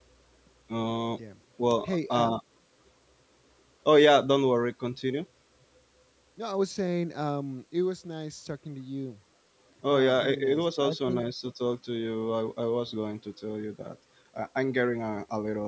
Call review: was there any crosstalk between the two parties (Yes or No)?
Yes